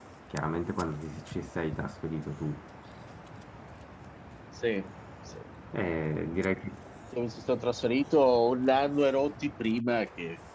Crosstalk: none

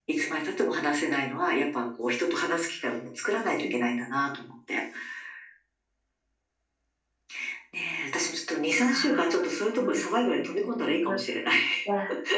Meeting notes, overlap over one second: present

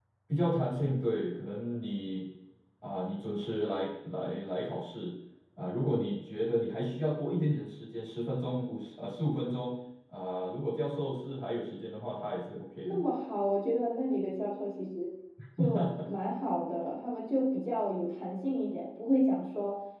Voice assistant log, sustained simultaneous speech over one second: none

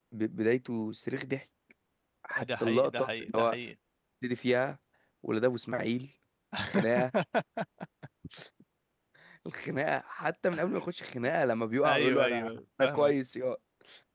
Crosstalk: present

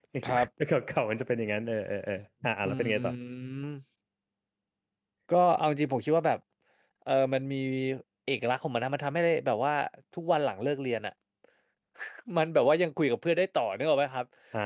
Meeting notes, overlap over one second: none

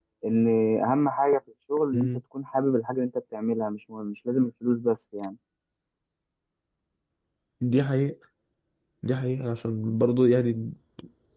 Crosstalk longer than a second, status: none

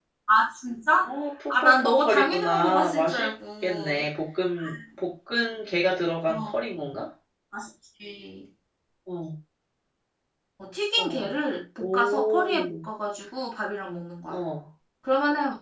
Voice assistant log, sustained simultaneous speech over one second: present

